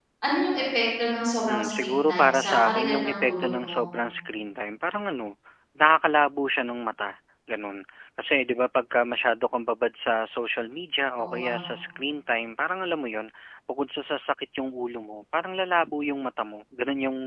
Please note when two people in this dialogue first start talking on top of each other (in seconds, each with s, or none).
1.5 s